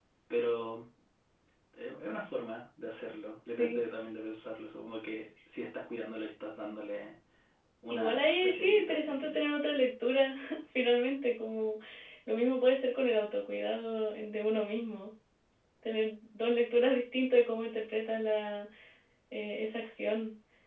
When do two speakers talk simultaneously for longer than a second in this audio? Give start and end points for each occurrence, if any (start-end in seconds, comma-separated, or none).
7.9-9.3